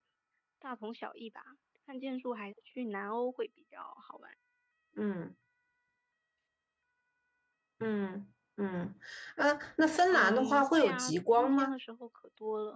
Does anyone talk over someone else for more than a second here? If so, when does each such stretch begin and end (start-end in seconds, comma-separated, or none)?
9.9-11.8